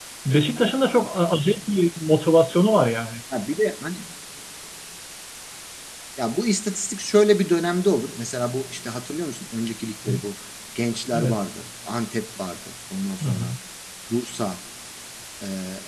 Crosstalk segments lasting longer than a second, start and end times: none

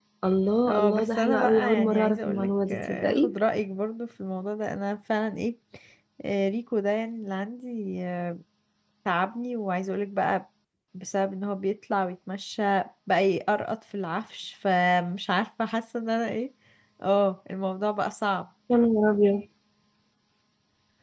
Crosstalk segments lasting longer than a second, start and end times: 0.7-3.3

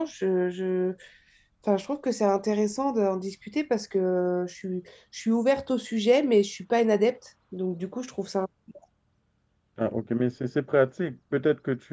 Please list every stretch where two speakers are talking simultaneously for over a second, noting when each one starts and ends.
none

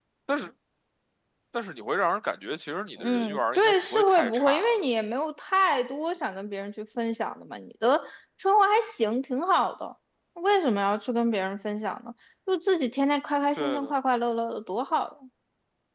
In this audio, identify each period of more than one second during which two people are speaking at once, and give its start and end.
3.0-4.8

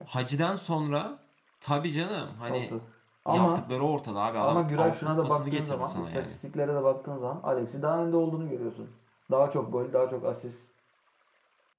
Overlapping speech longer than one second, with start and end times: 4.4-6.3

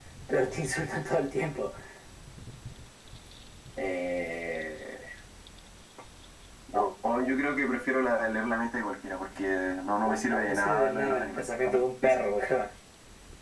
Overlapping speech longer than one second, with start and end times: 10.4-12.2

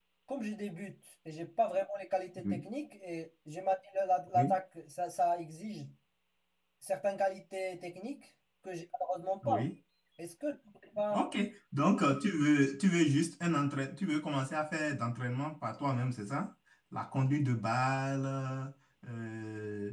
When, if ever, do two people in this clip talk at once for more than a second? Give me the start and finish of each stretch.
none

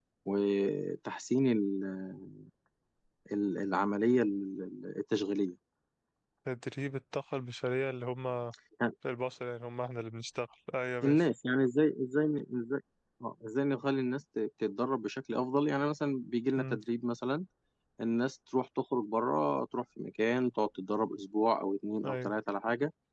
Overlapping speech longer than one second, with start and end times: none

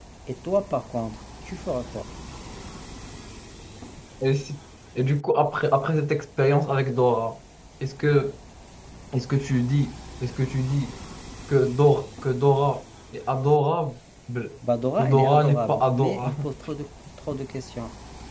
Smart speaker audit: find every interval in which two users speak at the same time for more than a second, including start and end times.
15.0-16.5

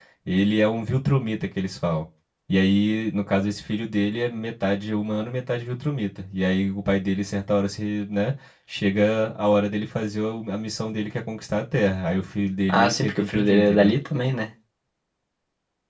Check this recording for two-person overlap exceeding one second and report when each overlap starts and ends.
12.7-14.0

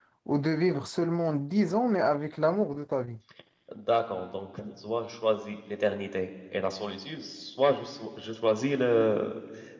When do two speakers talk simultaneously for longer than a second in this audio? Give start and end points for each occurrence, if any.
none

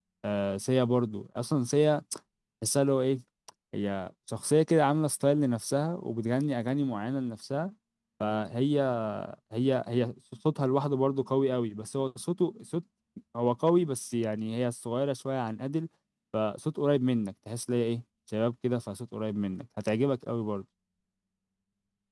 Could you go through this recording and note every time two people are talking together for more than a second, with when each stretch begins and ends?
none

